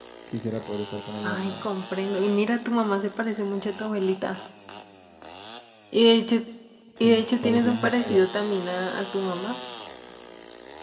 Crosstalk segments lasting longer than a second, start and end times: 7.0-8.3

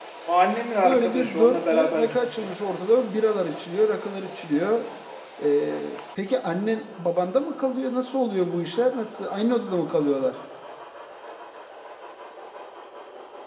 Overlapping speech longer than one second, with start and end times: 0.8-2.5

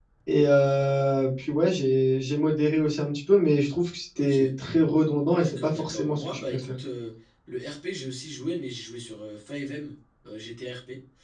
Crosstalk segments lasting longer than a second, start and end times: 5.4-6.6

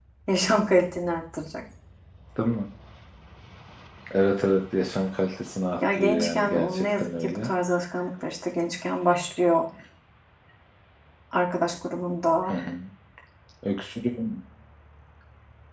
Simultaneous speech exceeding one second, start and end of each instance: 5.9-7.5

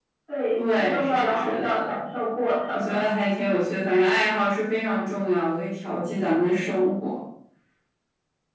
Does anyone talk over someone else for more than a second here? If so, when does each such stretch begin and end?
0.6-1.8

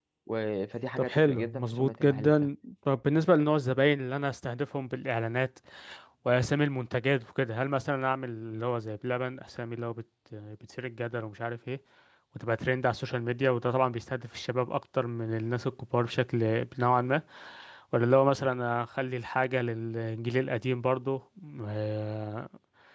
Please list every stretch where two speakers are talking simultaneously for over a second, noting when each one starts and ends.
1.0-2.5

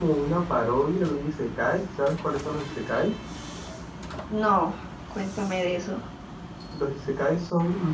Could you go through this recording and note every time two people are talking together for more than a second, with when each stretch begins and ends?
none

